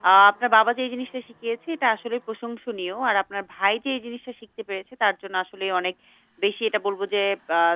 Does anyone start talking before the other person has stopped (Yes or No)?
No